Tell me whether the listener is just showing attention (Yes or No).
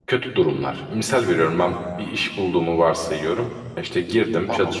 Yes